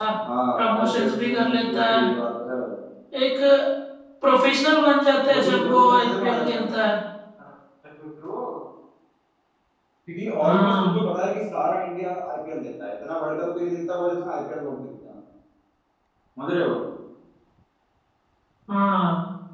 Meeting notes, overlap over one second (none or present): present